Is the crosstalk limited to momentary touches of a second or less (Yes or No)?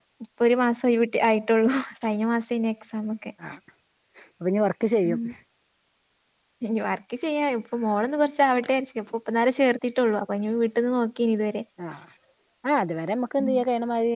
Yes